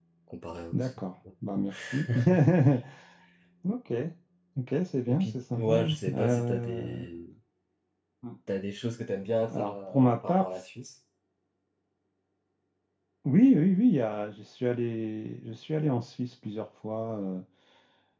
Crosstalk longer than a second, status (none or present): present